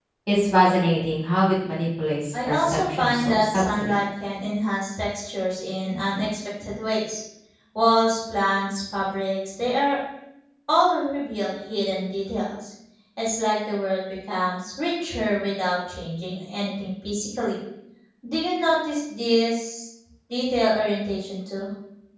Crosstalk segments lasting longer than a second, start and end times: 2.4-4.0

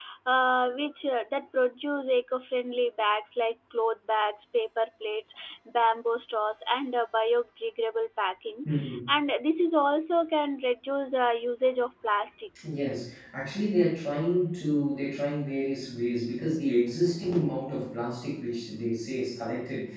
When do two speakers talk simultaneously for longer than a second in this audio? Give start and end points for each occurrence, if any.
none

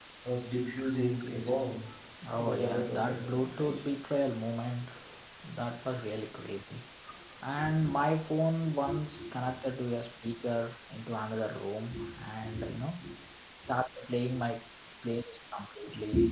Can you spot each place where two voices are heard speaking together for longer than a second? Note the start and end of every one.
2.4-3.8

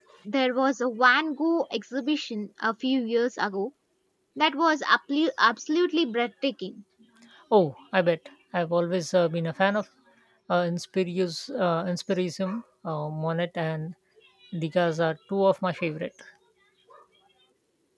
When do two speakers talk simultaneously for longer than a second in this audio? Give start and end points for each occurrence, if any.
none

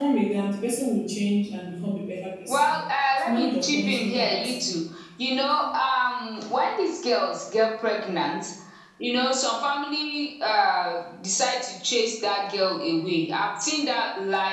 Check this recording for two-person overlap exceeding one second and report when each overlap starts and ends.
3.2-4.7

